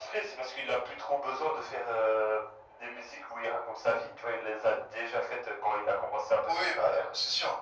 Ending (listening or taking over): taking over